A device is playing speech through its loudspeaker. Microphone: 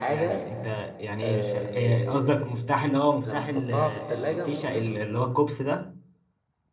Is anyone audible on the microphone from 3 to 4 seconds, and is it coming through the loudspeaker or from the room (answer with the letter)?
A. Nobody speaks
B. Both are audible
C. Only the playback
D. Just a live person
B